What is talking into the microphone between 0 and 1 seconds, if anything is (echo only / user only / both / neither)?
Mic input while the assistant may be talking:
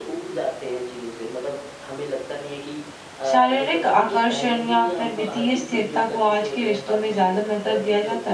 echo only